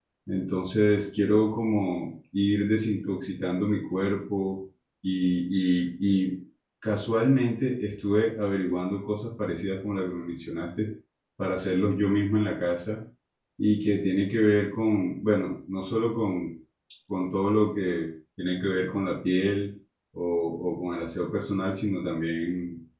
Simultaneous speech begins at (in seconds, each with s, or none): none